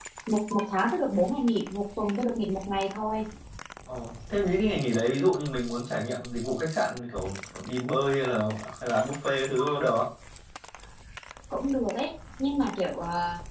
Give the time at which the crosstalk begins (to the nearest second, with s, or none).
none